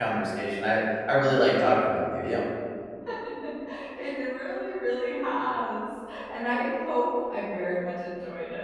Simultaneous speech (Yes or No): No